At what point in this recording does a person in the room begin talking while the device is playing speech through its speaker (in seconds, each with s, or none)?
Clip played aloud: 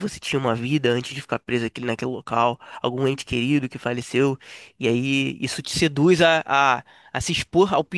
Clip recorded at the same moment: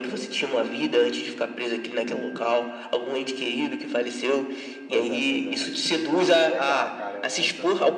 4.9 s